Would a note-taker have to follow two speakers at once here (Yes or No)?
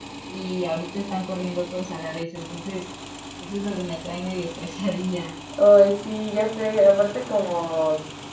No